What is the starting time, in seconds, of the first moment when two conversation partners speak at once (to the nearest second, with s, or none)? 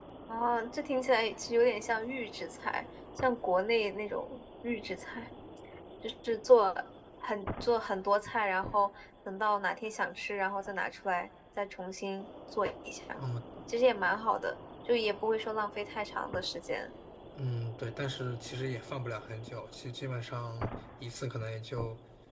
none